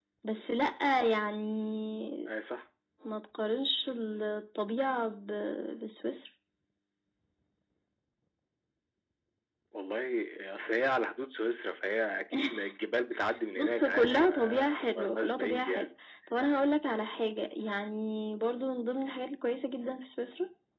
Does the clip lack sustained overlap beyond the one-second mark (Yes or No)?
No